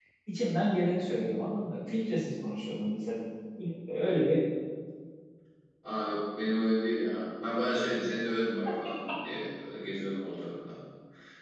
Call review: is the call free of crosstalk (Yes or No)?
Yes